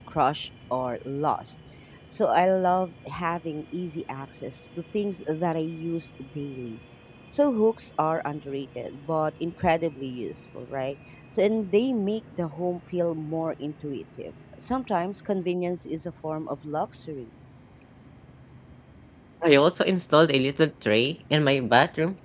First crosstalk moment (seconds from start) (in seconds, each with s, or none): none